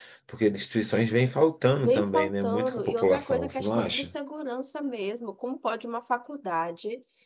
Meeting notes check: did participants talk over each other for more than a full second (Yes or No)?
Yes